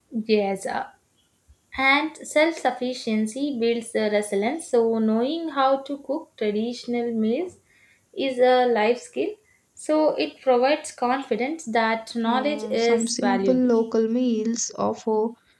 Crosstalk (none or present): present